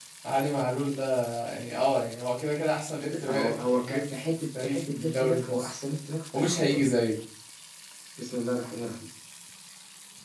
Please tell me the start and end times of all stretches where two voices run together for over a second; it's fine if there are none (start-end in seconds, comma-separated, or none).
3.1-5.7